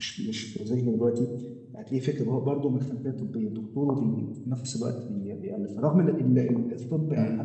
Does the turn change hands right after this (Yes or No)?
No